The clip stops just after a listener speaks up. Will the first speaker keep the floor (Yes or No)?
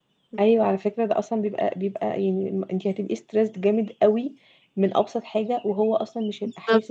No